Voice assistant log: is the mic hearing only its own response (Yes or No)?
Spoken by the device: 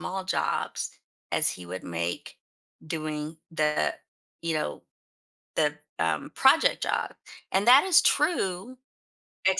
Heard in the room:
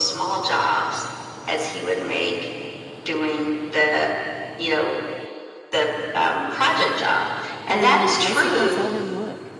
No